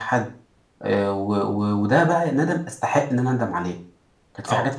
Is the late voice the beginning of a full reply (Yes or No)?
No